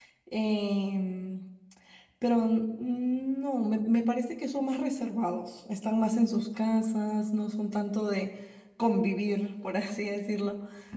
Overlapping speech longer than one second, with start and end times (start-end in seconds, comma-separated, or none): none